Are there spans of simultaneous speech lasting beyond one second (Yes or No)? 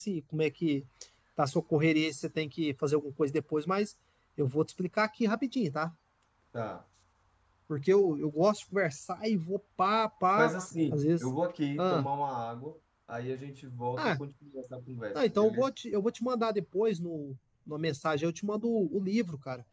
No